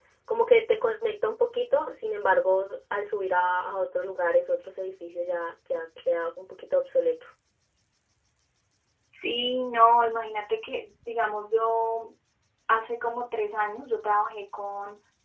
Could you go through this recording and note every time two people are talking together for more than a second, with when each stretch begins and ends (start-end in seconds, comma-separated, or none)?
none